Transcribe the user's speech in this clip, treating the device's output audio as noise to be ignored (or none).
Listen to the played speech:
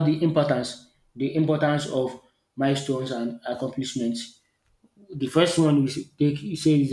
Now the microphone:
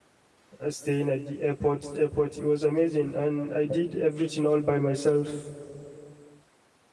uh, staying at the airport airport it was amazing and i did everything all by myself